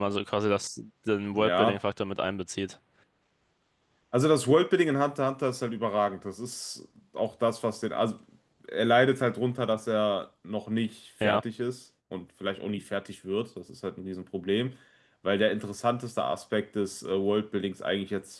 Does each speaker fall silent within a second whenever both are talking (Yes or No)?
Yes